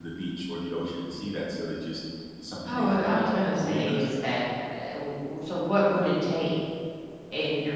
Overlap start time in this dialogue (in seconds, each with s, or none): 2.6 s